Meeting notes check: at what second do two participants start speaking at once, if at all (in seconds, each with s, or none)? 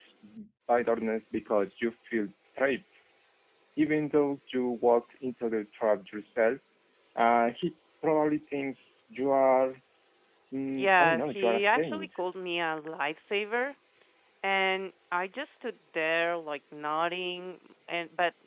10.8 s